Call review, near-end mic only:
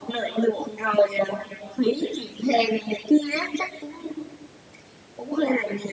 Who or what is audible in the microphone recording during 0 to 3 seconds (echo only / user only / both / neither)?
echo only